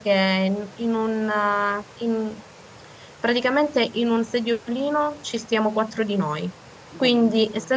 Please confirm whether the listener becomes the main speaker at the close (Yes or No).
No